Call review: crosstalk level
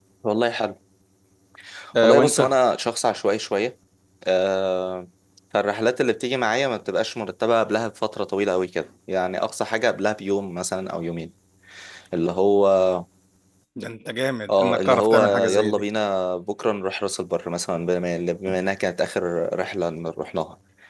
present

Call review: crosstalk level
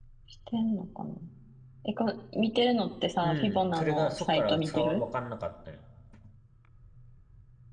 present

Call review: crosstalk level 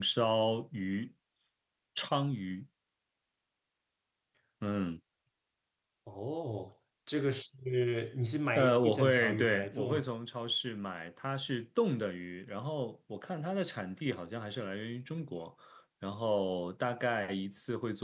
present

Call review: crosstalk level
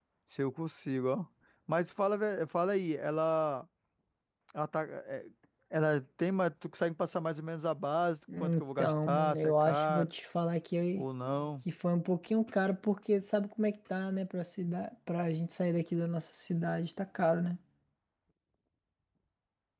present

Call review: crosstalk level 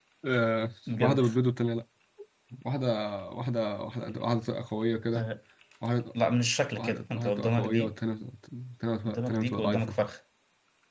present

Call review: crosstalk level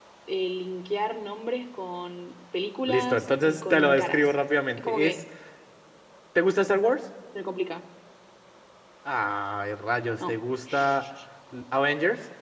present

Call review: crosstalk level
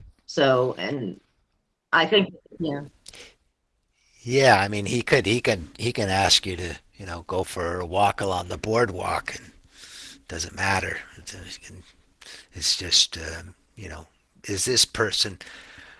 none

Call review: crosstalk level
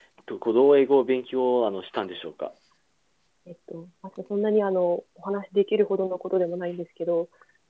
none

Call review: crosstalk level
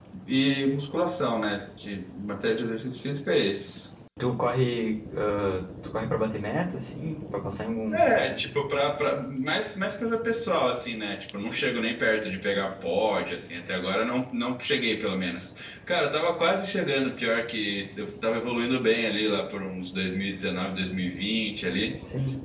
none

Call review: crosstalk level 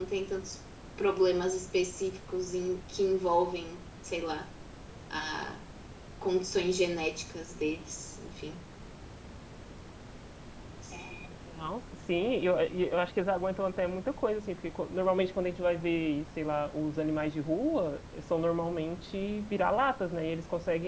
none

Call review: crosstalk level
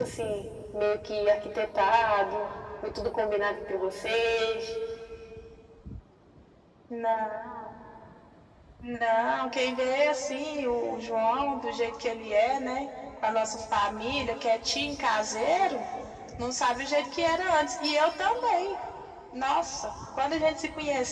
none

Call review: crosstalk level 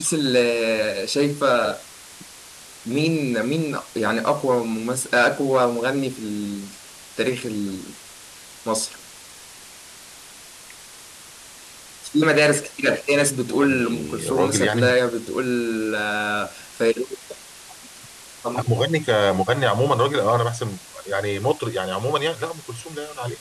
present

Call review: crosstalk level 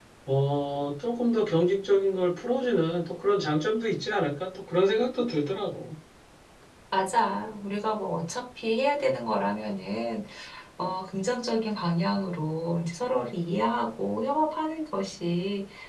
none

